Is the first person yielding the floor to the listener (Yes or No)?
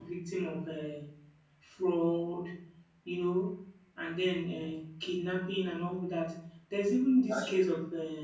No